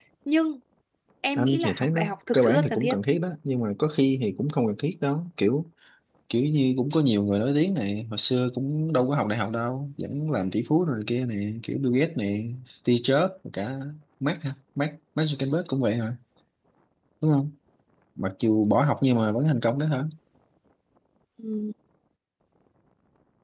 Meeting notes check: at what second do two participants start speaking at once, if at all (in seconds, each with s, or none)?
1.4 s